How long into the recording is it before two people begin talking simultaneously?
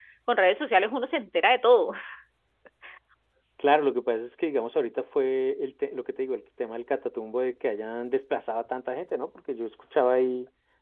none

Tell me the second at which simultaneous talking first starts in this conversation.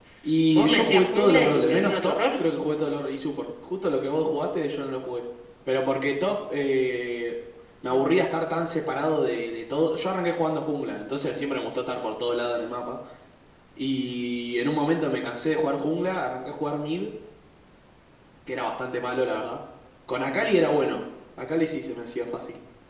0.5 s

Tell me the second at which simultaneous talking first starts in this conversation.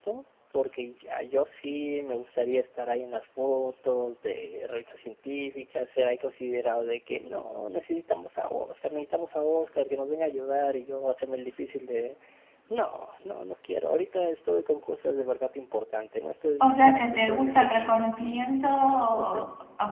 16.6 s

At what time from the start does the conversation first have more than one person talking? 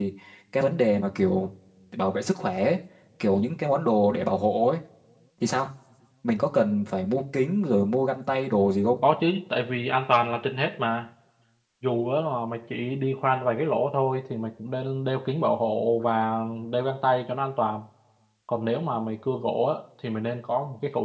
none

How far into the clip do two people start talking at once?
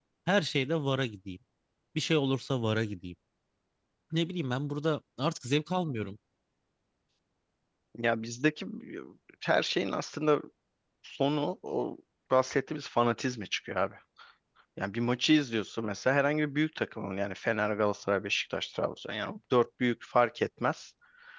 none

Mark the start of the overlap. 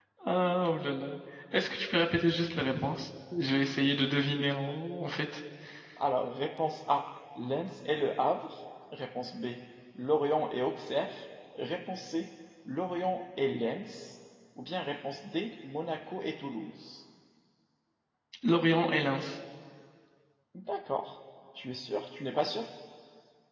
none

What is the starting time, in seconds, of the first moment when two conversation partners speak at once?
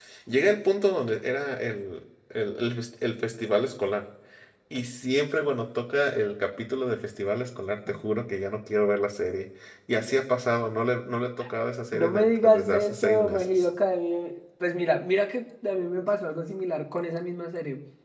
11.9 s

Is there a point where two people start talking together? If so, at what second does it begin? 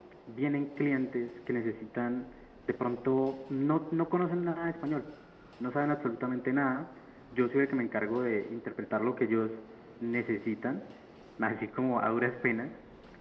none

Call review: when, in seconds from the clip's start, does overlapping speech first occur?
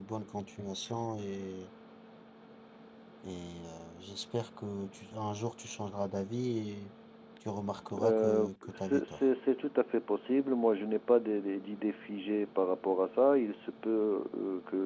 8.0 s

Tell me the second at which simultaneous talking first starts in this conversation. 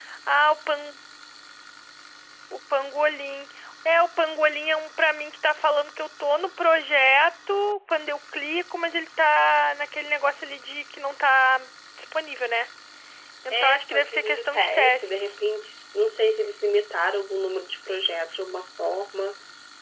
13.5 s

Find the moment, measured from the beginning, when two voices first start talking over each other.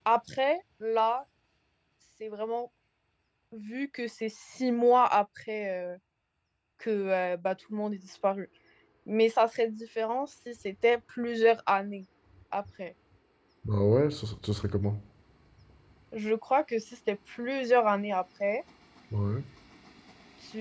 none

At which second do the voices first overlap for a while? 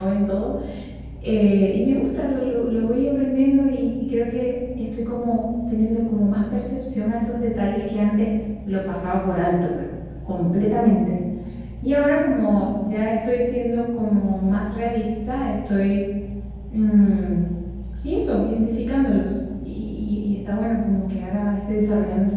none

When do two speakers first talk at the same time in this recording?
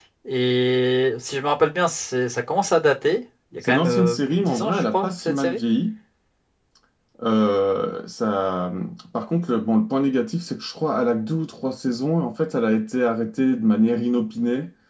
3.6 s

